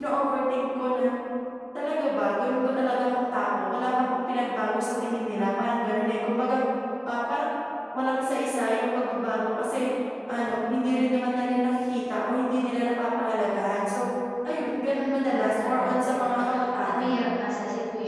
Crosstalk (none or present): present